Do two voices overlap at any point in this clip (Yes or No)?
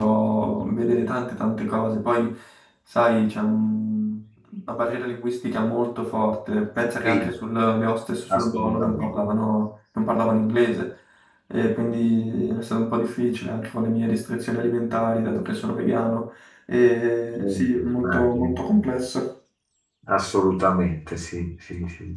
Yes